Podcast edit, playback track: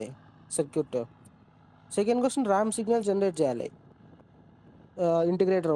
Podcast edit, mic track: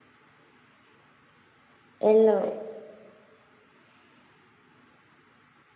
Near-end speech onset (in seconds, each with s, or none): 2.0 s